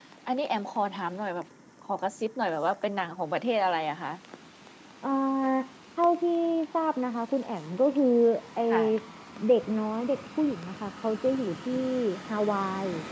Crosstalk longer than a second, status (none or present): none